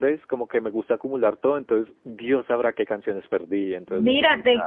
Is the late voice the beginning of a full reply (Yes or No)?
Yes